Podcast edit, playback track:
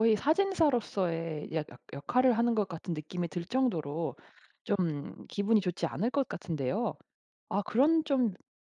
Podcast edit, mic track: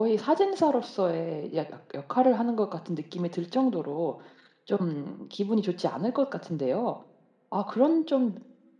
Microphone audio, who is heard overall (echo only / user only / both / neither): echo only